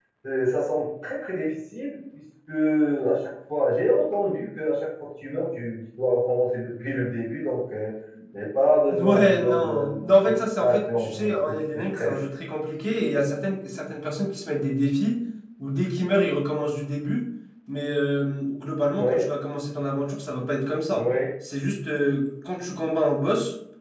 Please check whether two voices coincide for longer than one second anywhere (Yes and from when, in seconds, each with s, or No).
Yes, from 8.9 s